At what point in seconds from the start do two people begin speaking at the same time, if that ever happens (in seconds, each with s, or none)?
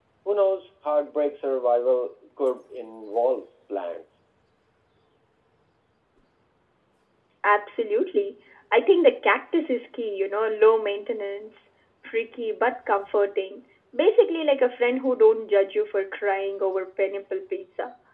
none